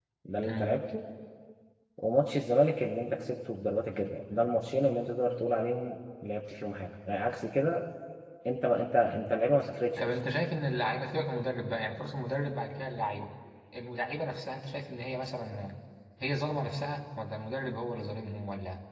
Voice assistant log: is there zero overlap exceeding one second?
Yes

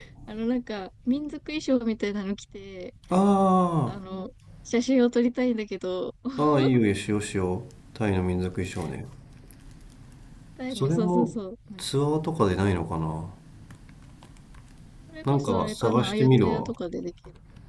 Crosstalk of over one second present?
Yes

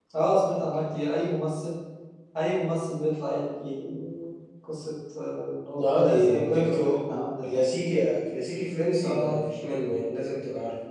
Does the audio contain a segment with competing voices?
Yes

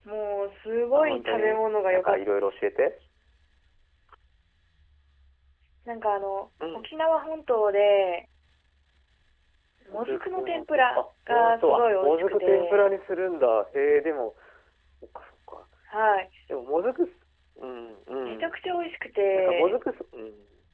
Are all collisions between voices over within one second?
No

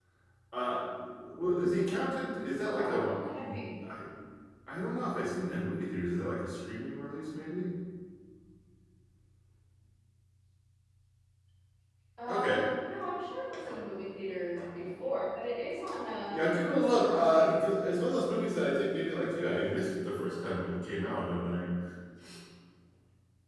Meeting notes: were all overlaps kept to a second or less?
No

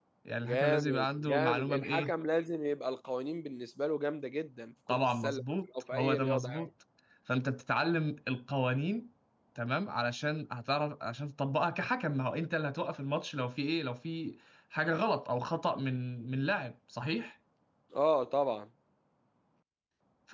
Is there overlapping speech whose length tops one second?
Yes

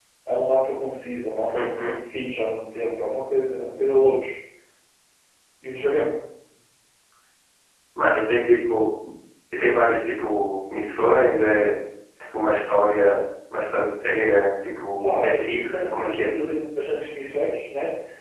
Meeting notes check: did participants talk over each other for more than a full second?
Yes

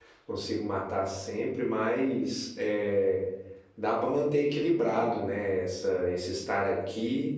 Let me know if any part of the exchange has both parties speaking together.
No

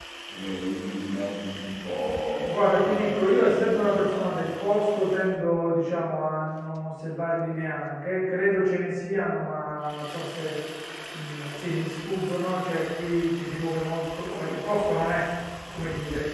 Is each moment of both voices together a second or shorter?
No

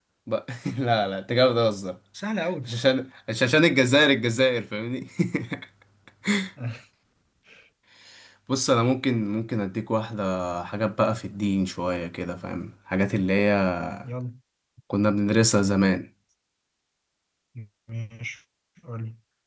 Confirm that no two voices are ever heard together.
Yes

